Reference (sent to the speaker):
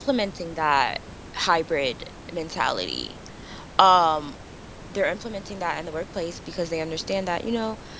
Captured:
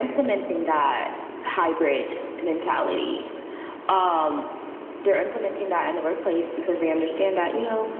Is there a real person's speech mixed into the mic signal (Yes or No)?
No